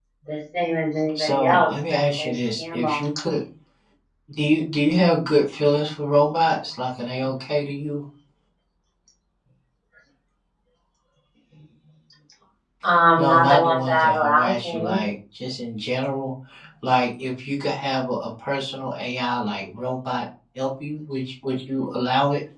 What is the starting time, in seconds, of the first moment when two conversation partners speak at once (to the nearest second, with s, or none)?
1 s